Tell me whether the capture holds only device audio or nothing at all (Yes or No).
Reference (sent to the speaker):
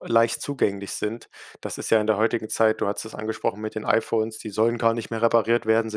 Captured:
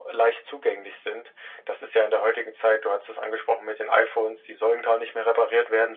Yes